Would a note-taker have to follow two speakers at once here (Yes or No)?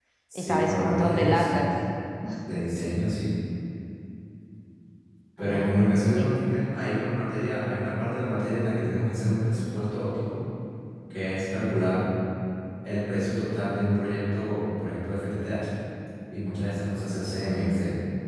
Yes